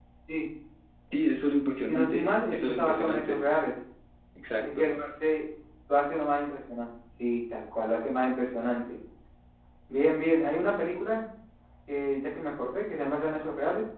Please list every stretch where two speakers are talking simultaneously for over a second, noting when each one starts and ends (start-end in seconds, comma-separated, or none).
1.9-3.4